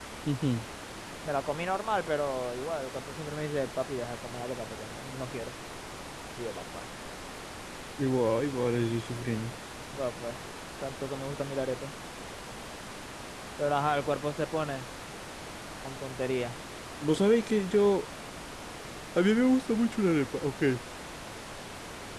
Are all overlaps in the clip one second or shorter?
Yes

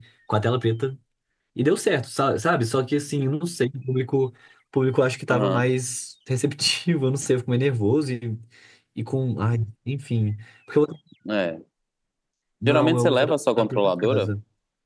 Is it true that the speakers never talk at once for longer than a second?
No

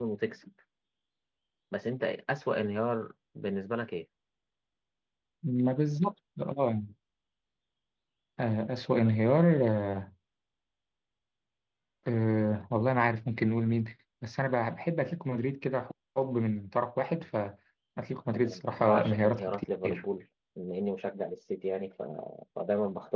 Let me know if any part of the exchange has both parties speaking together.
Yes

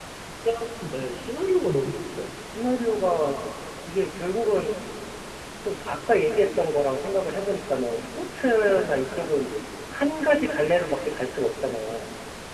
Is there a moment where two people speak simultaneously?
No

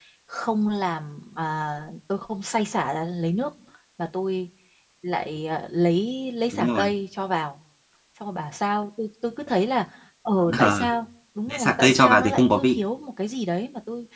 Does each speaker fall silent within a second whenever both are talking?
No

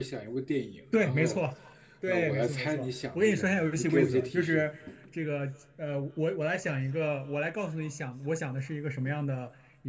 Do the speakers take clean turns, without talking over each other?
No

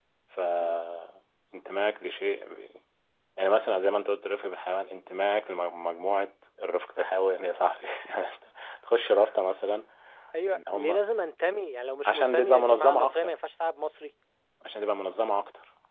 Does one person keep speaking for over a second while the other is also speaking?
Yes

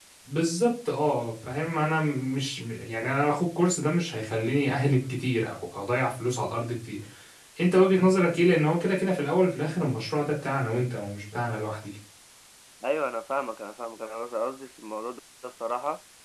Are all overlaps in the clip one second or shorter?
Yes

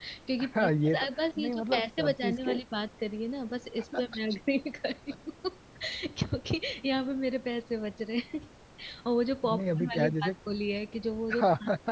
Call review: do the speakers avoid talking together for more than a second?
No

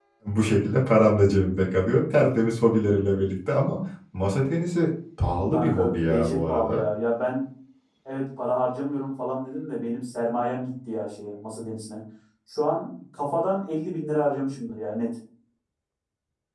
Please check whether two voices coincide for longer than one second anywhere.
Yes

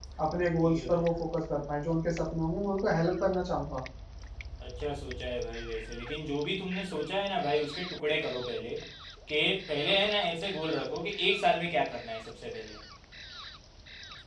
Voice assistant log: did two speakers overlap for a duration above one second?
No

